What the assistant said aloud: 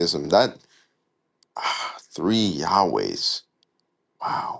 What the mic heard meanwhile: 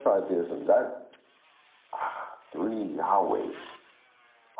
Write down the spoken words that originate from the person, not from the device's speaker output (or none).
none